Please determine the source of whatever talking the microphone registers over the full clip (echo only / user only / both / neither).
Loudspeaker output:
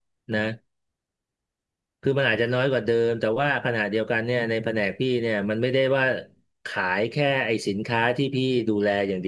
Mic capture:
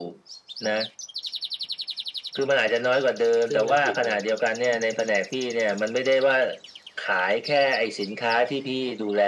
both